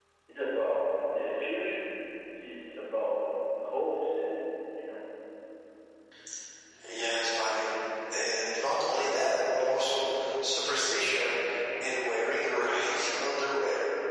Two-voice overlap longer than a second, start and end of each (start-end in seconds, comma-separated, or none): none